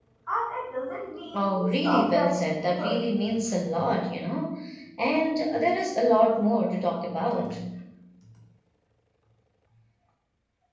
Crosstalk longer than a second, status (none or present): present